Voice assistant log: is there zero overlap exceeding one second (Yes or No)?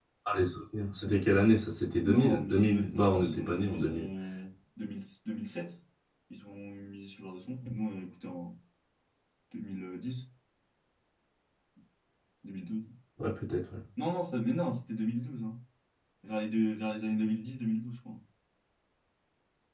No